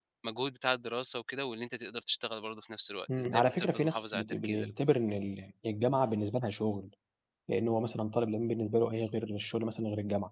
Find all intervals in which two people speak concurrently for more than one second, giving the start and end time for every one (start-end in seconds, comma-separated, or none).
3.1-4.7